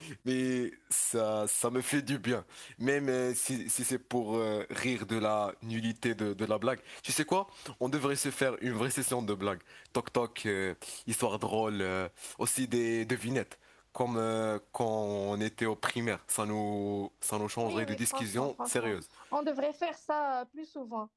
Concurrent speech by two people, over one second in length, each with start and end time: 17.6-18.9

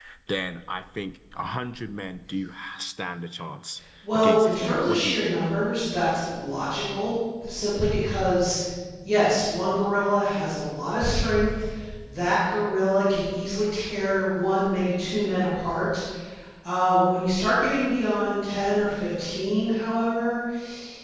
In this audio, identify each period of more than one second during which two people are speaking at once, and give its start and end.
4.1-5.4

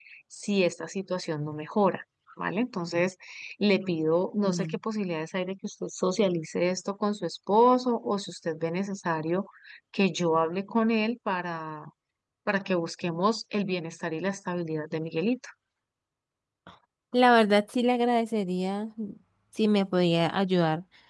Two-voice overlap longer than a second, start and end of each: none

